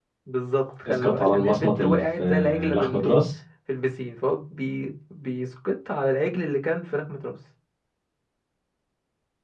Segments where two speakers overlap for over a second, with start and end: 0.9-3.2

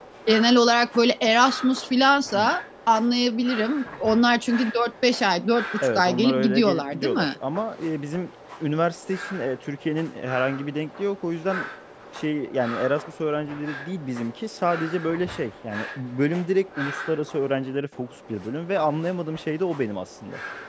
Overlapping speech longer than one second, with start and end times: 5.8-7.3

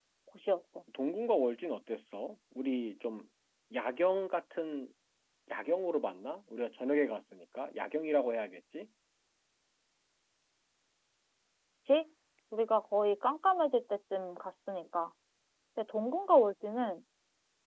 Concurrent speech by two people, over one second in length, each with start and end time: none

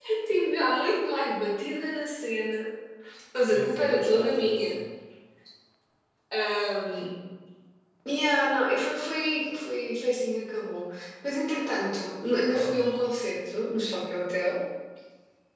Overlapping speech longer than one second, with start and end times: 3.5-4.8

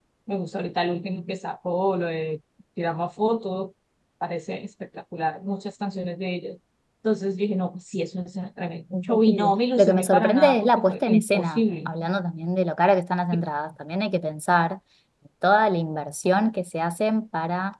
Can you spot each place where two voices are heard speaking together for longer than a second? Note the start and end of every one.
8.9-11.9

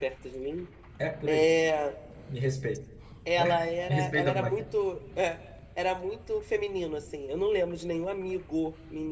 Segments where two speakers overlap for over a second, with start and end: 3.4-4.6

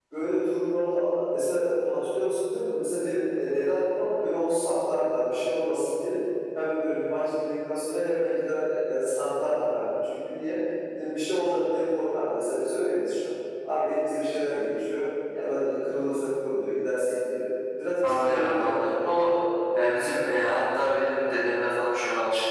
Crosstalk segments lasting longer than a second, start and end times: 18.0-19.4

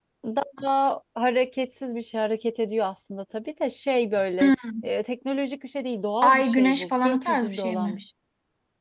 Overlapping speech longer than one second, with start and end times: 6.2-8.0

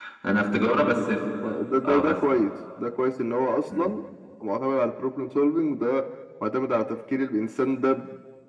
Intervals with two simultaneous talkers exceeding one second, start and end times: none

